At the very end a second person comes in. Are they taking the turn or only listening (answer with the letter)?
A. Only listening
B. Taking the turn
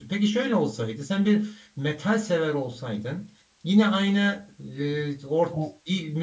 A